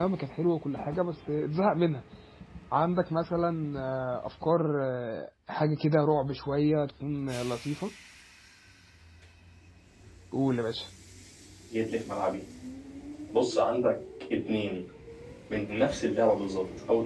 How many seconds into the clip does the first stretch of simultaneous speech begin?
none

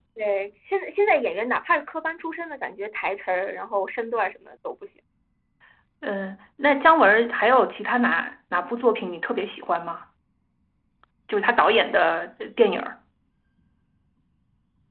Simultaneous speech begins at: none

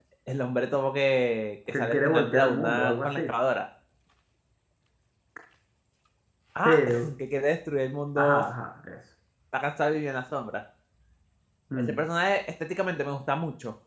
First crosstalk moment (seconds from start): 1.7 s

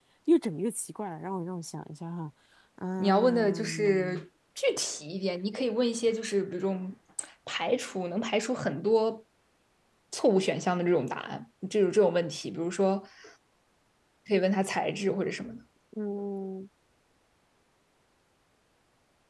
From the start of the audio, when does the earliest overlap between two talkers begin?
3.0 s

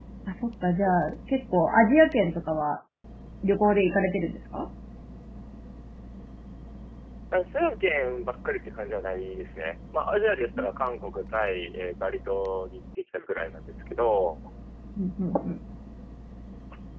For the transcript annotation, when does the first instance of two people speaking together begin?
none

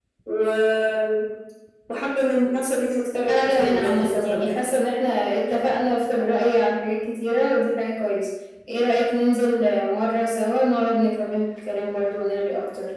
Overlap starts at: 3.3 s

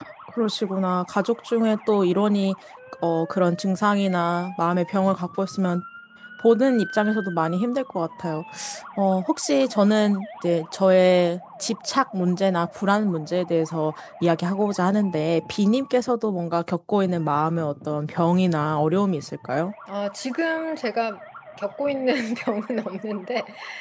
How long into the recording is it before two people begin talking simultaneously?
none

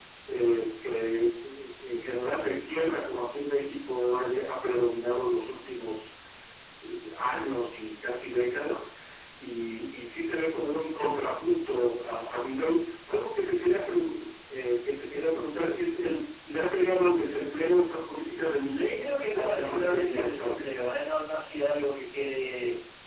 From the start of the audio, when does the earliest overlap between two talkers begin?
19.0 s

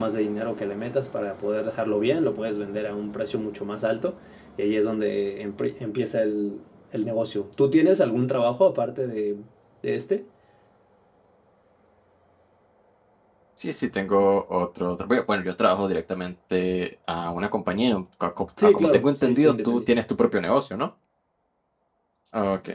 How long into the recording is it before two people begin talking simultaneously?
18.6 s

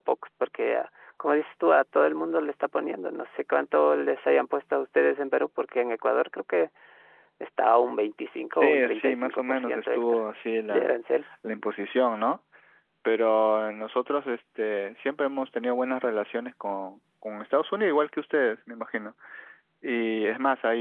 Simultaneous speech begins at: 8.5 s

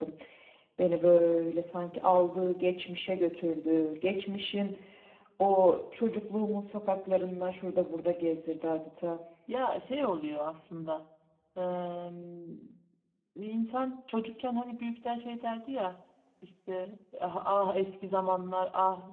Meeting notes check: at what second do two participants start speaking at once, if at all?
none

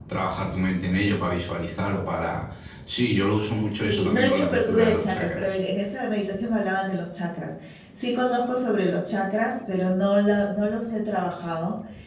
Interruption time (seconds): 3.8 s

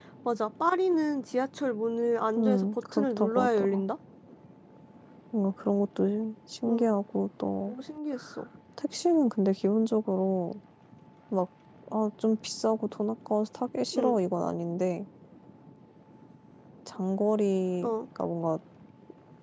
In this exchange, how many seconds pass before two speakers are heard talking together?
2.4 s

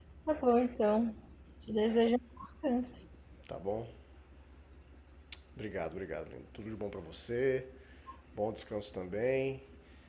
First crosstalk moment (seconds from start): none

